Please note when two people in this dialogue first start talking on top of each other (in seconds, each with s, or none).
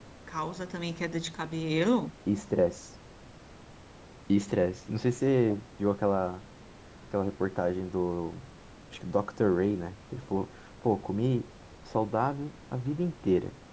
none